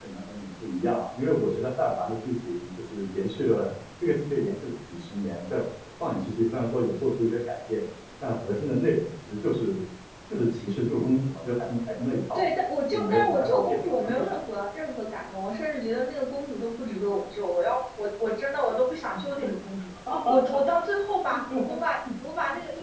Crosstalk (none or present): present